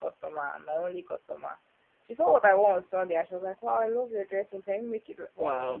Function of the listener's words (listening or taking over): listening